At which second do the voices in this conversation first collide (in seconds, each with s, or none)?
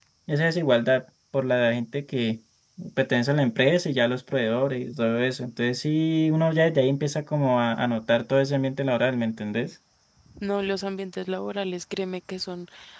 none